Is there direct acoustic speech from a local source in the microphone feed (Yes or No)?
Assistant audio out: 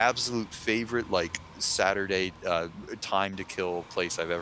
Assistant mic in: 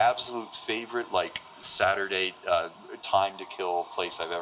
No